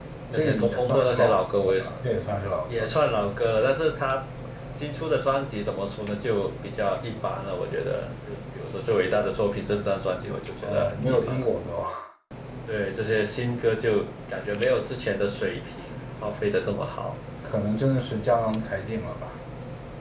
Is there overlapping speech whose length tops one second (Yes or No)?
Yes